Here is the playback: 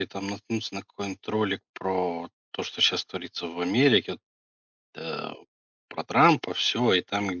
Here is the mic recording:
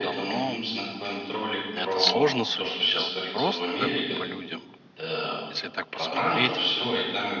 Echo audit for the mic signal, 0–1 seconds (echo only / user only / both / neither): both